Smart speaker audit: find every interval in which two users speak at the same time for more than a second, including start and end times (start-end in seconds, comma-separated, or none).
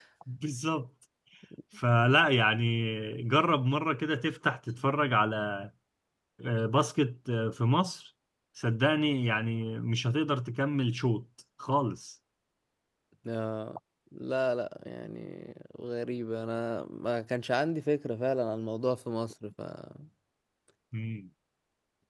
none